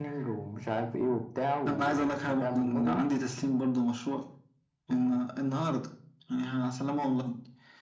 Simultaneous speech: Yes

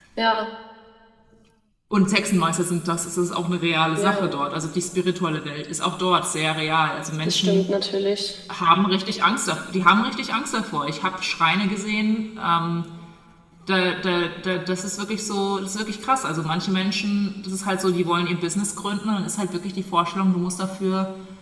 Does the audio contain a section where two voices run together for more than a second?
No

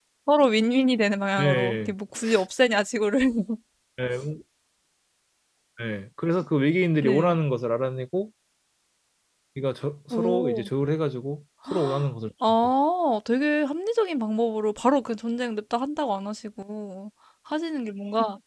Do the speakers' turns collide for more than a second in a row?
No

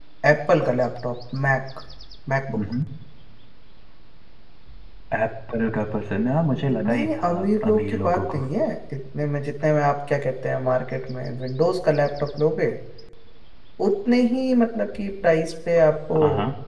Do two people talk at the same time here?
Yes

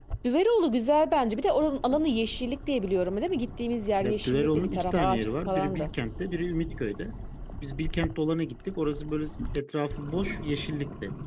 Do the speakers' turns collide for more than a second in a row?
Yes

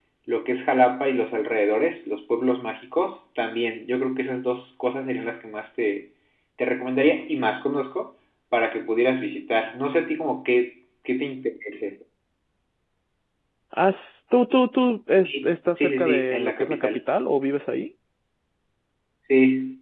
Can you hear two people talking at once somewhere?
Yes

